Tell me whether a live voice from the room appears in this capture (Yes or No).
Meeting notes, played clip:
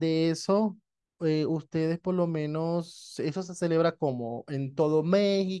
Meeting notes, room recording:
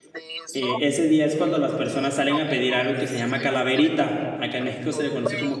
Yes